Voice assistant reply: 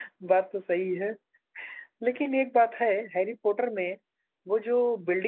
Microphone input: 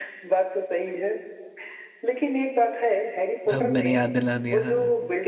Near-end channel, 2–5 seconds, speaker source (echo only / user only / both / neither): both